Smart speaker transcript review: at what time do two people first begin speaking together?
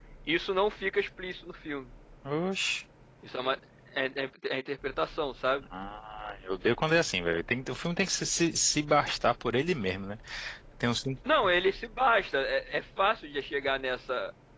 none

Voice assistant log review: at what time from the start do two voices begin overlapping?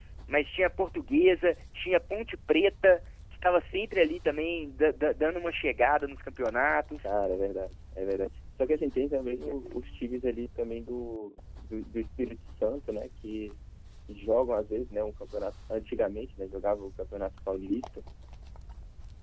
none

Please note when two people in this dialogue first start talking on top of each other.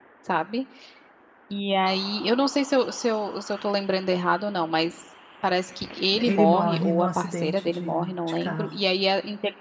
6.1 s

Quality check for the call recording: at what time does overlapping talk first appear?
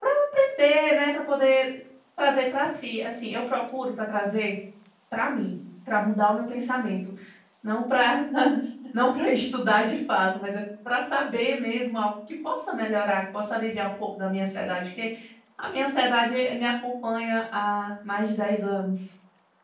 none

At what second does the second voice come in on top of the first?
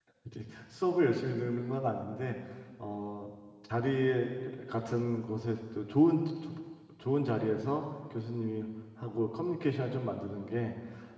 none

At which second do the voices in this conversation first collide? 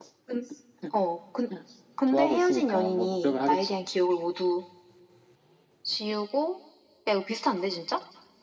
2.1 s

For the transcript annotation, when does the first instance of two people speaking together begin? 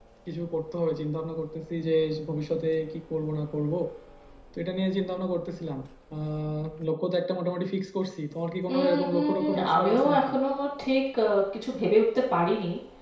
8.7 s

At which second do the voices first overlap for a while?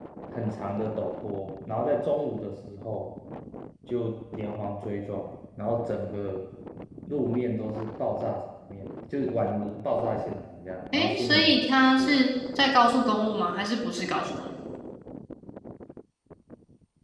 10.9 s

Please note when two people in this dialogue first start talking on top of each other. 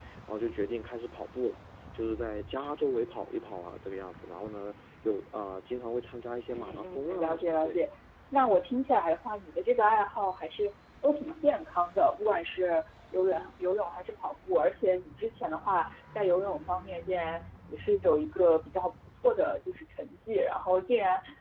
6.5 s

